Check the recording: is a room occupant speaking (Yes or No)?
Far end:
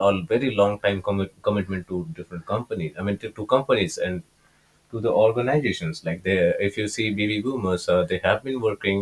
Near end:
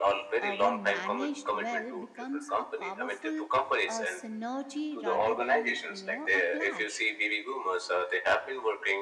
Yes